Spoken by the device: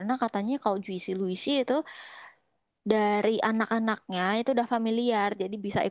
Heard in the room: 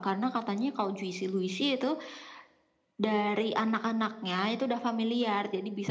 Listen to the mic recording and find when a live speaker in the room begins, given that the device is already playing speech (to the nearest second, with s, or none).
none